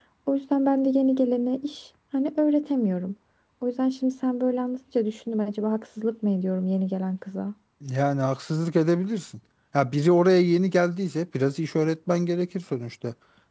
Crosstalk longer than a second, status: none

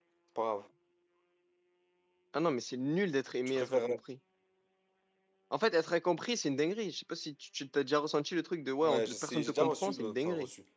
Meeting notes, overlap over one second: present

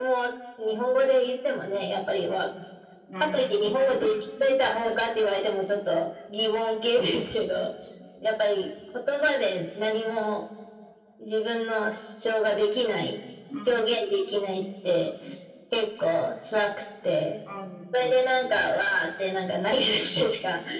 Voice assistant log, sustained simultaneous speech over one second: present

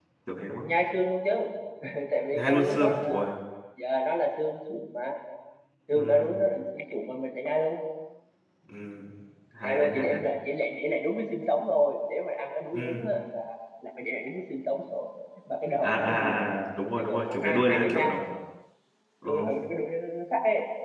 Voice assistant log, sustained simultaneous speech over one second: present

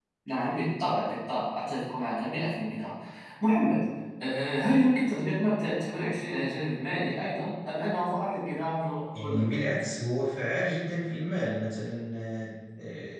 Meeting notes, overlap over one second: none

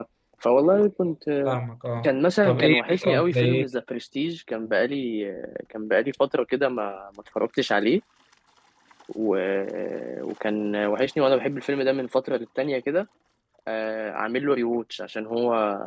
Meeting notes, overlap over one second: present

